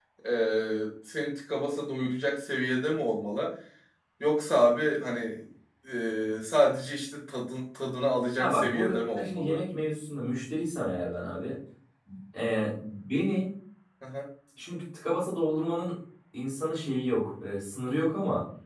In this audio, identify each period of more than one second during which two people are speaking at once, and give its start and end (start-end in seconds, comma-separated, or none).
8.4-9.6